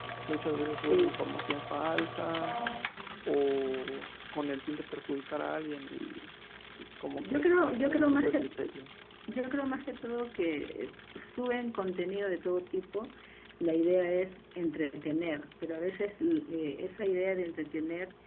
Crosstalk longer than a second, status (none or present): present